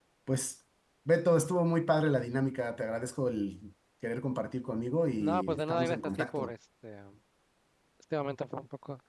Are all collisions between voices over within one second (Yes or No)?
No